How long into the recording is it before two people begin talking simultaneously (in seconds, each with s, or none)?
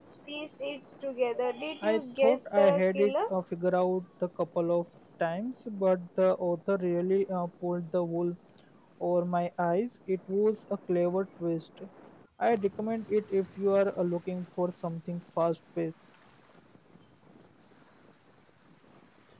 1.8 s